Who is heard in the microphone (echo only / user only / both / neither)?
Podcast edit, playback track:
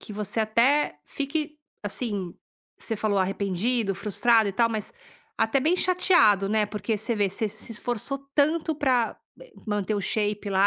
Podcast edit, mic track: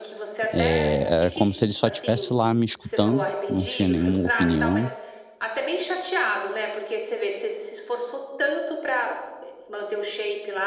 both